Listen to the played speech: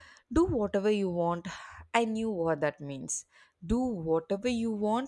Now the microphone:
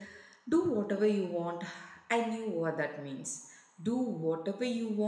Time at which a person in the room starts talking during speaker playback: none

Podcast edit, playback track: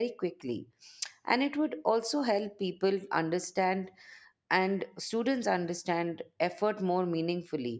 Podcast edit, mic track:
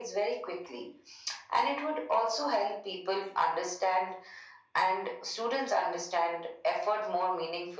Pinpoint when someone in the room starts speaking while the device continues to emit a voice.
none

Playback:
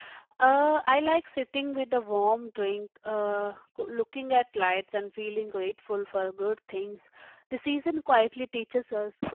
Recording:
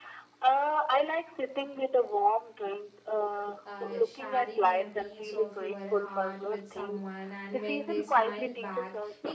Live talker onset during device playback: 3.6 s

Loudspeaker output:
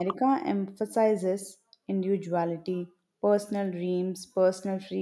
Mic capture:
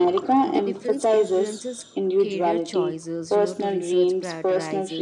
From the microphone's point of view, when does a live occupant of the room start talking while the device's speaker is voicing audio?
0.4 s

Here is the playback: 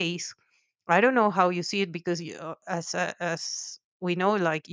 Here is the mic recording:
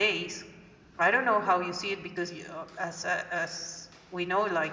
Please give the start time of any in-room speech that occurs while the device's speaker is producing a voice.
none

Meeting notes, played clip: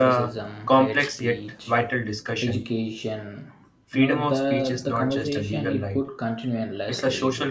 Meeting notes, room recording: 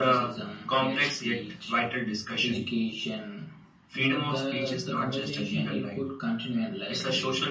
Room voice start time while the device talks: none

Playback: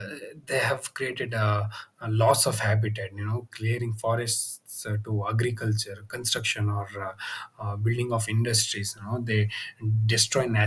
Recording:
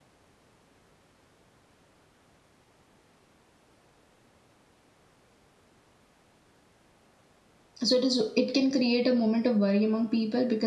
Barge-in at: 7.9 s

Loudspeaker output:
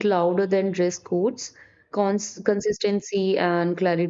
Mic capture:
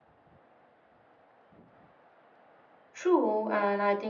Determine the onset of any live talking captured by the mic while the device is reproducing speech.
2.9 s

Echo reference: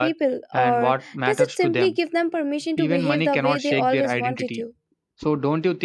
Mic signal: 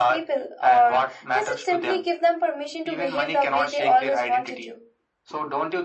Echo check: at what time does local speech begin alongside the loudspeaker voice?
none

